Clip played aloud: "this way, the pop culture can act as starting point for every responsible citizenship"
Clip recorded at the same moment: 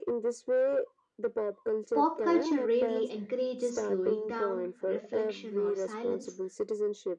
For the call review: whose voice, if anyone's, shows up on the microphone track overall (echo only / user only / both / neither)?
both